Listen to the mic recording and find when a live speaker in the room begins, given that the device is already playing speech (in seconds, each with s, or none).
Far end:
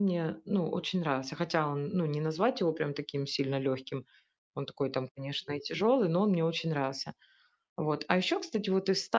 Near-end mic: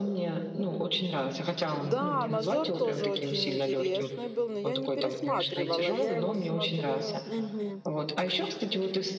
1.8 s